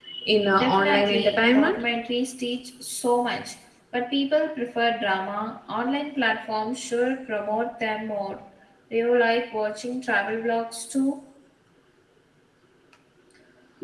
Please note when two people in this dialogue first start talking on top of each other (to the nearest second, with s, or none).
1 s